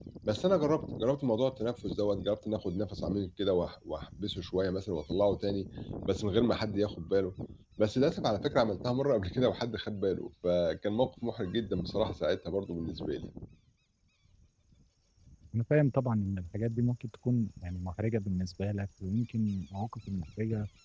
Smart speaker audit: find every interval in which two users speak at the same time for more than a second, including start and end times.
none

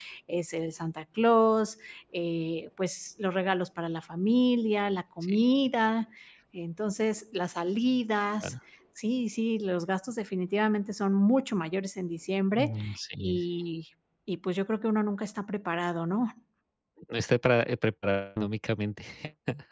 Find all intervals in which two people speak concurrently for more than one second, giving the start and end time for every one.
none

